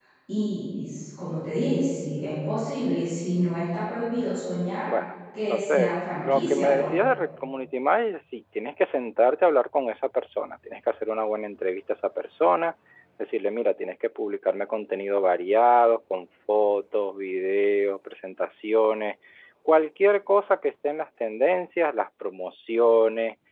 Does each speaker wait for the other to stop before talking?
No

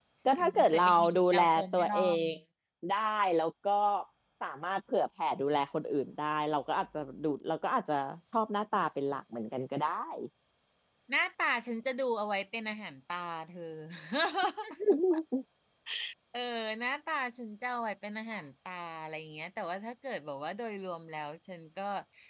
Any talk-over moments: Yes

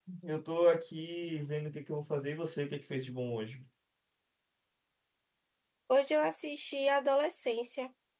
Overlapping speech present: No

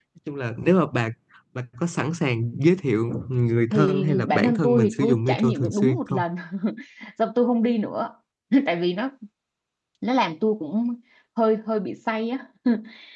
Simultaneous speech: Yes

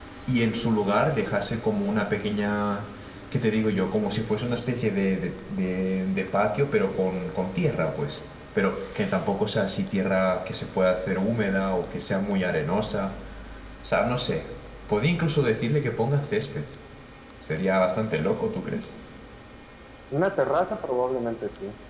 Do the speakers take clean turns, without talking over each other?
Yes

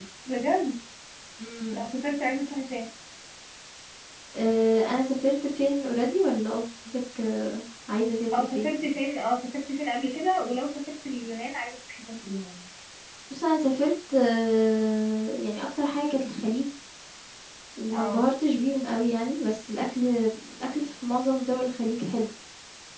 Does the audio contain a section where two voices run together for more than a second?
No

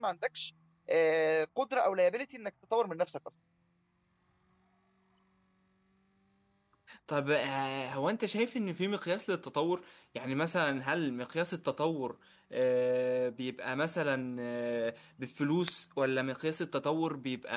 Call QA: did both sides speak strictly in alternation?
Yes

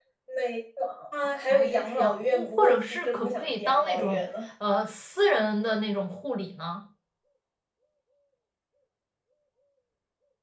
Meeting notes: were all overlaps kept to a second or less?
No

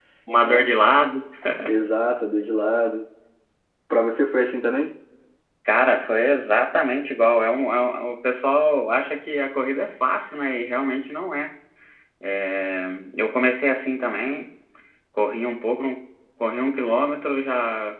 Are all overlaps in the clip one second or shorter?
Yes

